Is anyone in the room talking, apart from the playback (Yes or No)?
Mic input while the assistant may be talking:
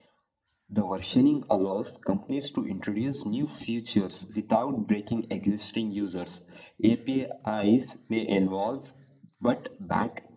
No